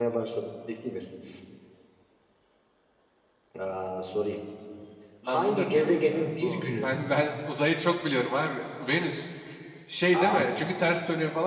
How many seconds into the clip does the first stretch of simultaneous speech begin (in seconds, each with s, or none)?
5.3 s